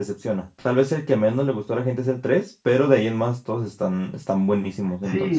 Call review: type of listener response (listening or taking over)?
taking over